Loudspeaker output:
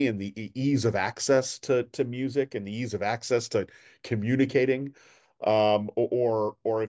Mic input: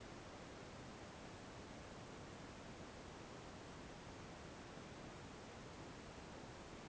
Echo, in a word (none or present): none